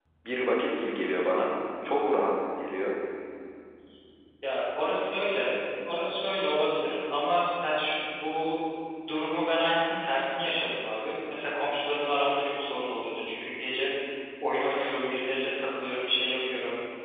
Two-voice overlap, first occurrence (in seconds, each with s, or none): none